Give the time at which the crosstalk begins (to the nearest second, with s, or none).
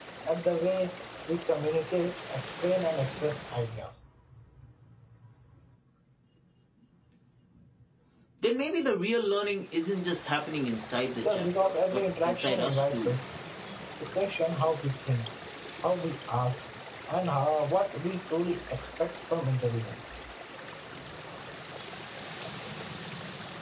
11 s